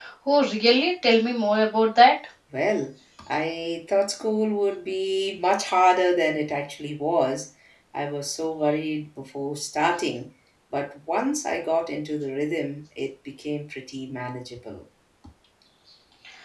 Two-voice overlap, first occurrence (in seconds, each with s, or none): none